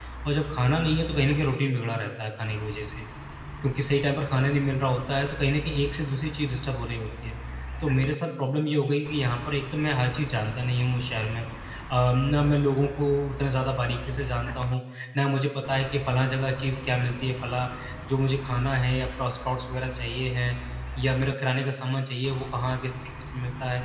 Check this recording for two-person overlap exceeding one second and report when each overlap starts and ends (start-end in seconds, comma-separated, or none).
none